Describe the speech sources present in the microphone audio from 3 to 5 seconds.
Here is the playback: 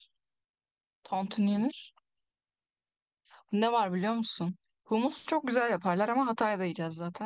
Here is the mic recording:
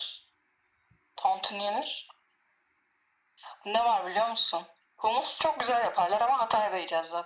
echo only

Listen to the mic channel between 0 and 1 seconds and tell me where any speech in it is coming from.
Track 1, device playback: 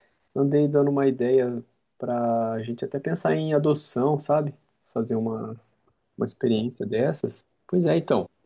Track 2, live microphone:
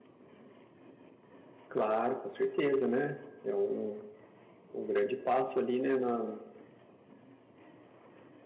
neither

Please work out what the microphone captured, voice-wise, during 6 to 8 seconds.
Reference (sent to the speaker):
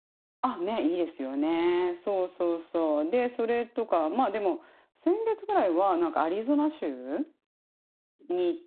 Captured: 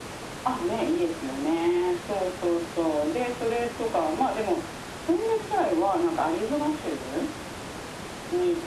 echo only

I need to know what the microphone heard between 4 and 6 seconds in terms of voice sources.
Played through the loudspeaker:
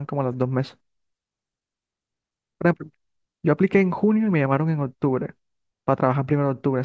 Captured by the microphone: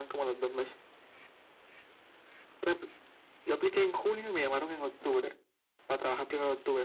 echo only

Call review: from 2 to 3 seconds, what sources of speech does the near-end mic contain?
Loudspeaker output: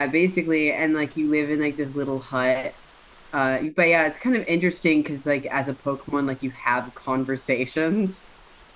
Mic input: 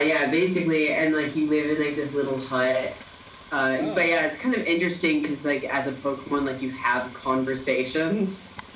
echo only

